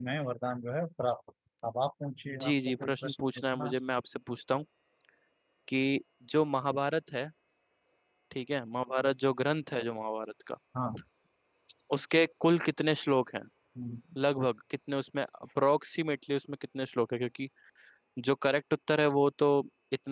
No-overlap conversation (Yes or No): No